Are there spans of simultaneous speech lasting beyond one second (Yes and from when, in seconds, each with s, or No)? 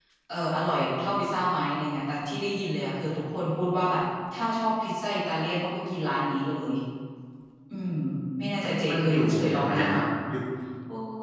Yes, from 8.6 s